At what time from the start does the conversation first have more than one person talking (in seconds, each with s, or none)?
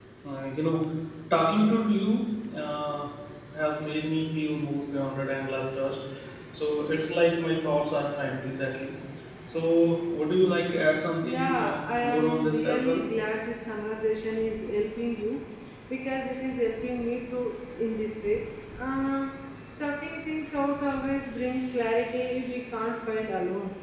11.2 s